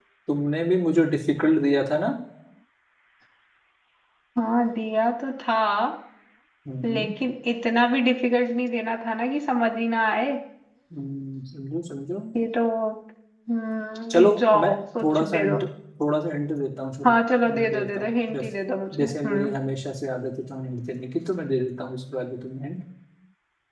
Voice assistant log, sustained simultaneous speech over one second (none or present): present